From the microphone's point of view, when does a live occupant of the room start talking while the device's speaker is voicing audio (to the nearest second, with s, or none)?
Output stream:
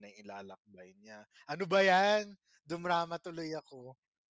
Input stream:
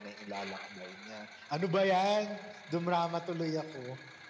none